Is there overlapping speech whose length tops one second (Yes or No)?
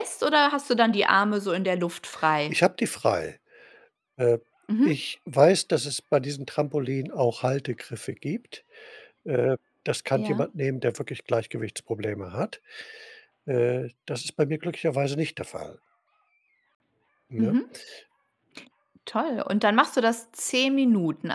No